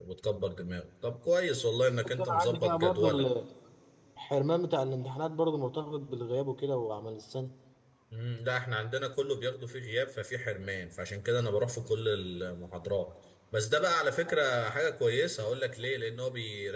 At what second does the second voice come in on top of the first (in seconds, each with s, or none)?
1.8 s